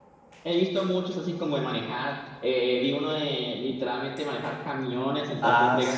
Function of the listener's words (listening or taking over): listening